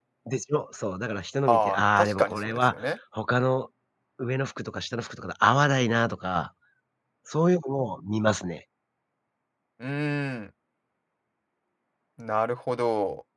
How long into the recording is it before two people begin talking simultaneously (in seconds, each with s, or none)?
1.5 s